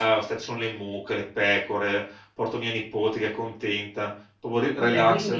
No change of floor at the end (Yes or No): Yes